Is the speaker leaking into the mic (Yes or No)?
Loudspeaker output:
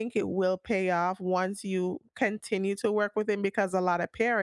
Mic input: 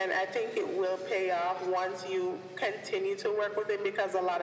Yes